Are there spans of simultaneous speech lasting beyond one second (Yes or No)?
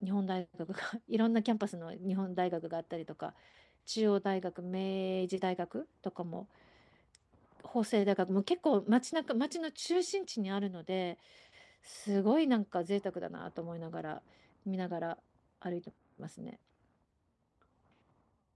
No